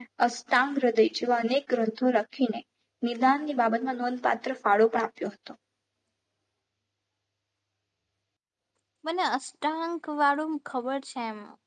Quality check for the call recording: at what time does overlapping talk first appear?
none

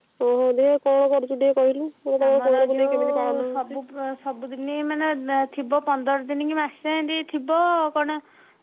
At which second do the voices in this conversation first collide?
2.2 s

